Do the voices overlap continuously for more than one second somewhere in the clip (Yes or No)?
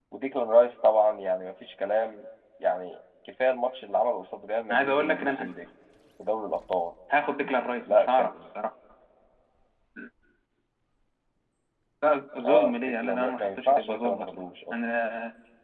Yes